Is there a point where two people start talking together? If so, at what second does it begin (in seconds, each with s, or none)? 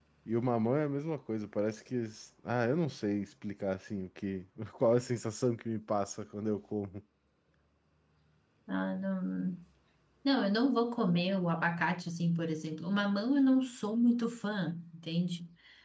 none